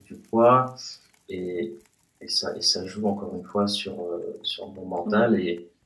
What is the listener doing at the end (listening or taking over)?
listening